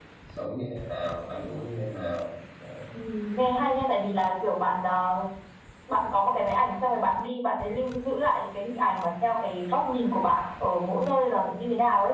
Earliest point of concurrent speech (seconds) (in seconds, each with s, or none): none